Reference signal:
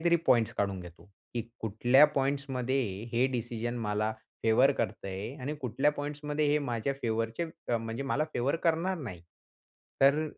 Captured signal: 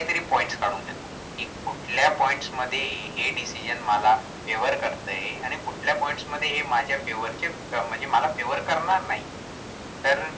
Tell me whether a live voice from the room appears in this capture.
No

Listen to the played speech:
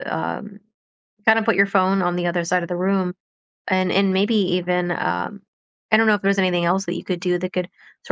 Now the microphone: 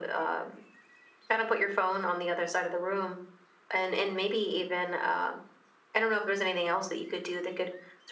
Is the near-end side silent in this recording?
Yes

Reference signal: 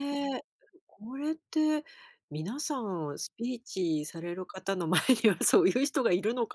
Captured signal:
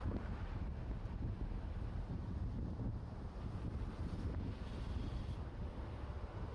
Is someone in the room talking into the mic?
No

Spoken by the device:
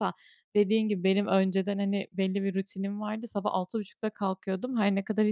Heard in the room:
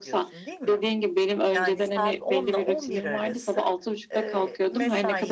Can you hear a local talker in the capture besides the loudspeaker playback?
Yes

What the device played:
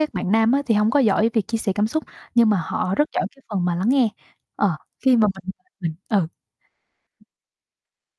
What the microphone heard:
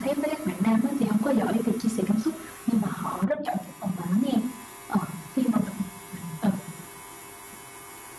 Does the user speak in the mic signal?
No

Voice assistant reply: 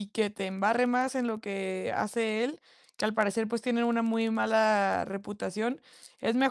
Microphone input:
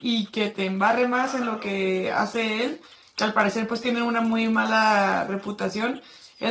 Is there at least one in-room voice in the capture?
Yes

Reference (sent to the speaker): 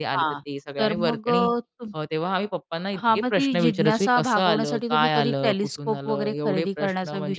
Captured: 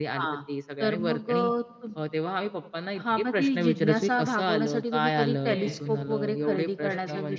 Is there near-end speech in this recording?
Yes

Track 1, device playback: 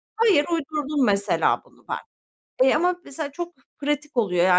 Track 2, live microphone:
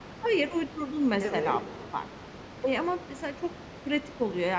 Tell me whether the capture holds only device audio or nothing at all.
No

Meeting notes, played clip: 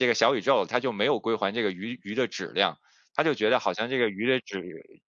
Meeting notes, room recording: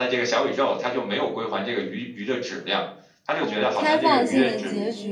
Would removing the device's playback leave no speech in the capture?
No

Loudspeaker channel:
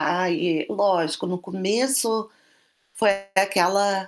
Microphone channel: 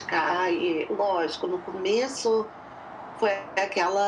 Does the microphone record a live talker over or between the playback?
No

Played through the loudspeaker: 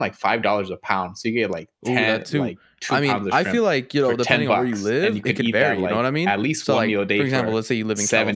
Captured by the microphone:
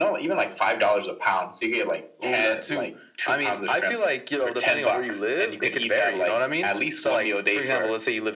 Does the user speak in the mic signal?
No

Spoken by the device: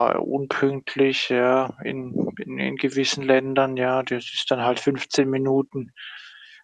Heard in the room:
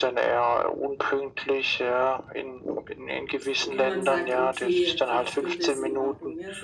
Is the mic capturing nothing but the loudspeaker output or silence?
No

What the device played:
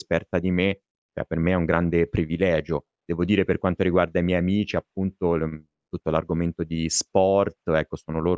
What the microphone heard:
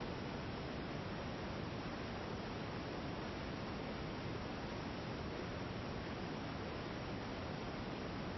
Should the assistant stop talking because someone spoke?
No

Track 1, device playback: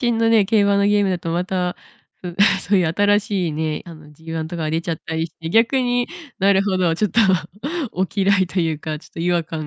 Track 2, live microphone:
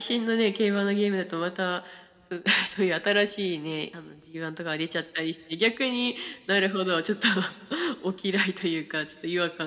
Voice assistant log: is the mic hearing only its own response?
Yes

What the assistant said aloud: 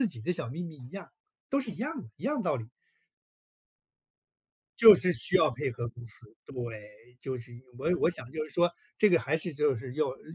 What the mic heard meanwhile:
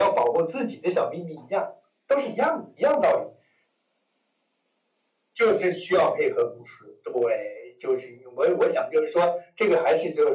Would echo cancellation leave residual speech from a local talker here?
No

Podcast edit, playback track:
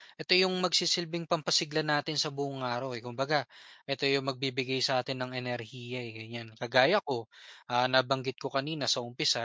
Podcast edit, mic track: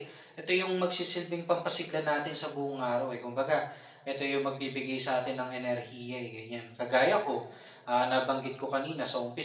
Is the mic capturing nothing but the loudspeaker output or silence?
Yes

